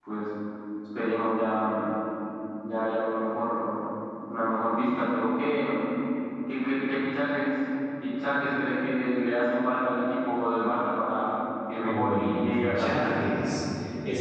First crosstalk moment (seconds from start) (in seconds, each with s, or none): 11.8 s